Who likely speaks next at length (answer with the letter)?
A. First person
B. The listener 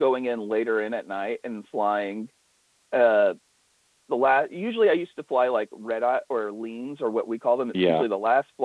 A